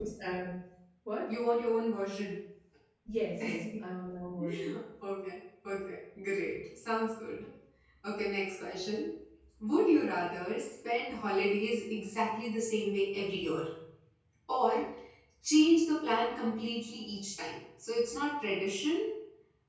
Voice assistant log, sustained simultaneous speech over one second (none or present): none